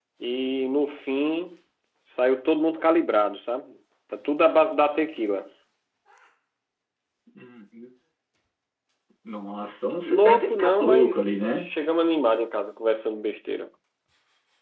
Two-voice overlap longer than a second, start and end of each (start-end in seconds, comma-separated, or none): 10.1-11.7